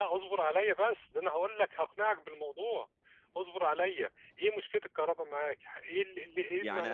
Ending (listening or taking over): taking over